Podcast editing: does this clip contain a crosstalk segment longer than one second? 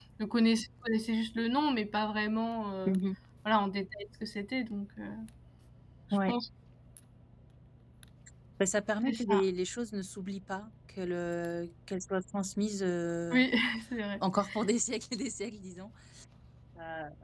No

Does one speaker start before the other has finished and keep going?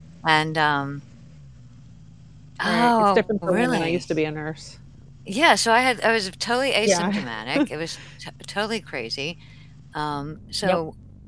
Yes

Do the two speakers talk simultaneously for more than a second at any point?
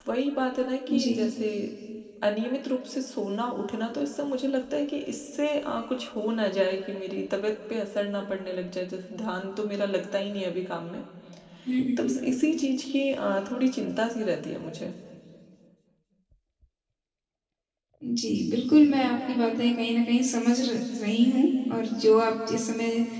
No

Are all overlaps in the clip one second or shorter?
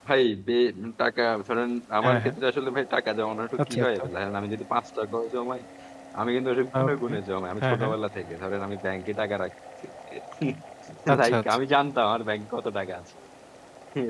Yes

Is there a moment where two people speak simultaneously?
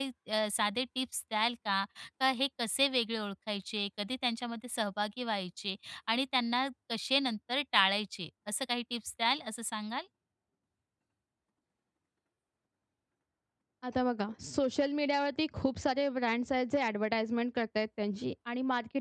No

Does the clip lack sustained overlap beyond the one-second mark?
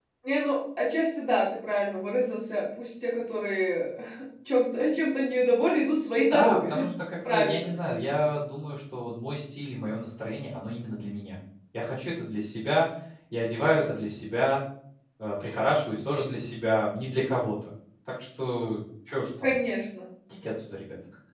Yes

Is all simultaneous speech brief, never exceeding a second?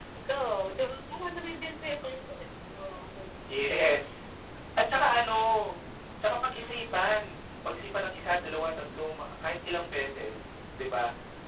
Yes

